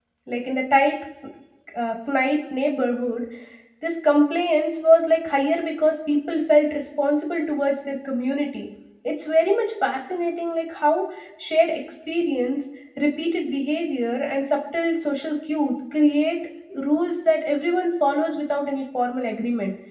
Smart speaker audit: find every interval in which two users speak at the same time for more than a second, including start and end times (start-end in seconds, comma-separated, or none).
none